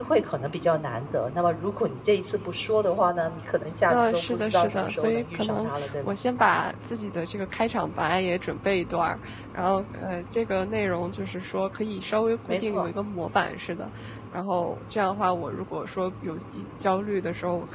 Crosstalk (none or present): present